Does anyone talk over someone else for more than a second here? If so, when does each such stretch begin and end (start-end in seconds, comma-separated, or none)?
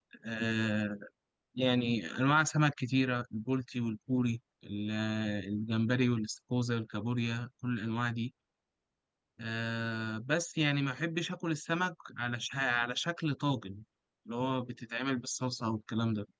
none